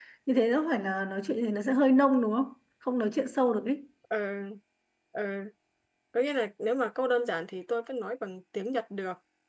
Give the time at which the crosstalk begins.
none

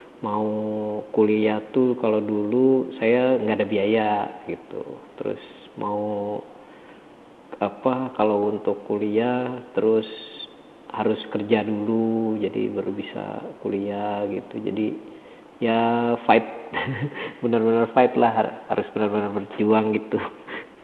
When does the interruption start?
none

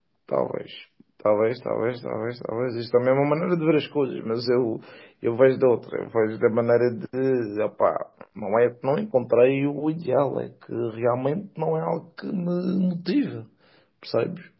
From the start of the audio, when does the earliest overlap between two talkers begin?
none

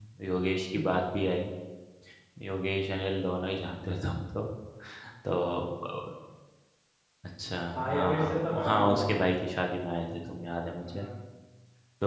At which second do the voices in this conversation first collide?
7.8 s

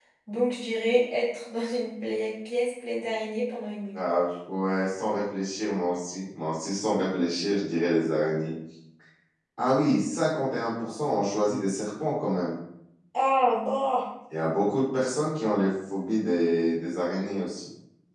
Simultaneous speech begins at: none

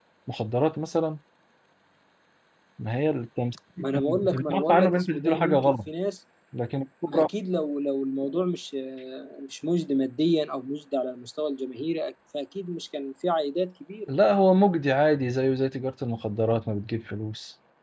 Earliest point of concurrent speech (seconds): 3.8 s

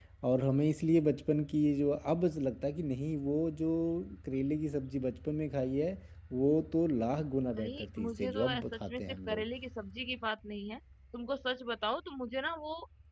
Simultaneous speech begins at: 7.5 s

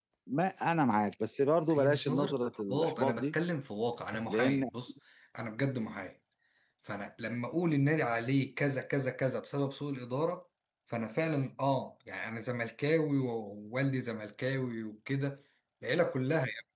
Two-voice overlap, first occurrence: 1.7 s

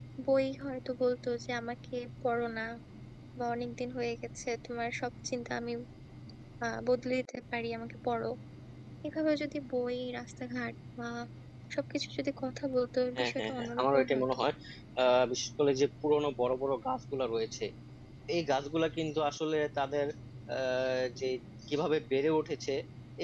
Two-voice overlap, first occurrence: 13.2 s

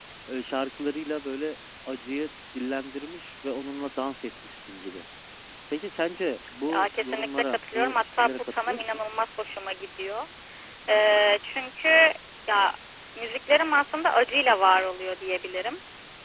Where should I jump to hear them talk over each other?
6.7 s

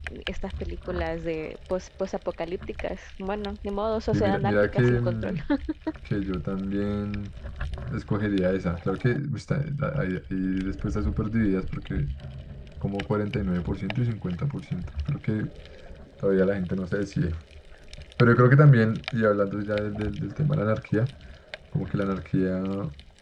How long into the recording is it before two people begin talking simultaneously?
4.1 s

